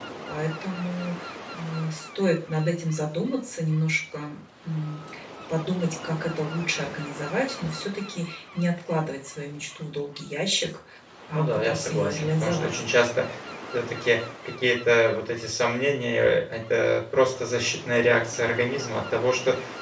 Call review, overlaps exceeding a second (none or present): present